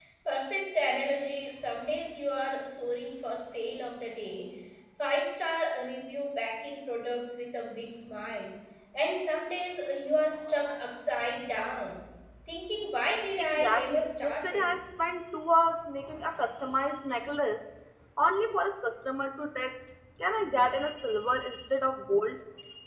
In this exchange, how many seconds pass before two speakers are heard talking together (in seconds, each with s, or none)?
13.4 s